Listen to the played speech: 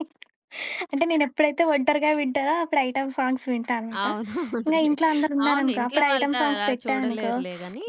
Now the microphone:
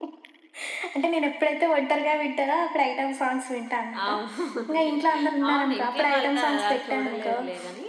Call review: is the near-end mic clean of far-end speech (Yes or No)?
No